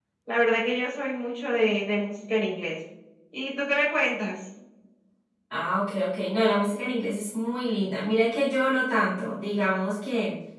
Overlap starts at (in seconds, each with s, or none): none